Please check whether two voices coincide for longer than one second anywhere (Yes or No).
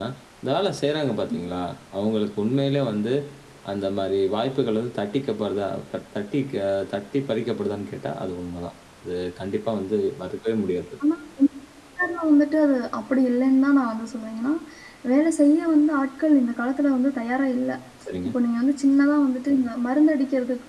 No